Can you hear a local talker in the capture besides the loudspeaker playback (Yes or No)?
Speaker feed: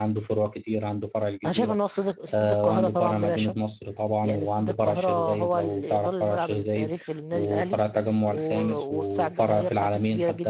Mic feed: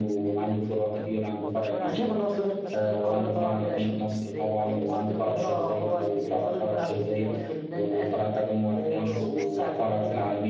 Yes